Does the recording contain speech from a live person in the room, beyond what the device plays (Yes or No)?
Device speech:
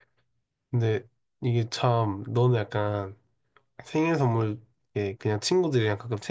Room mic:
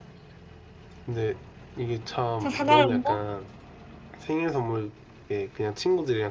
Yes